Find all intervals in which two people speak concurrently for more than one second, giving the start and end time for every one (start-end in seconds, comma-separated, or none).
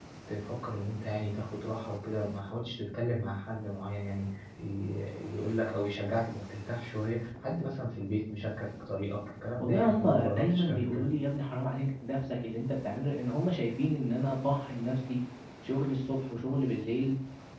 9.6-11.1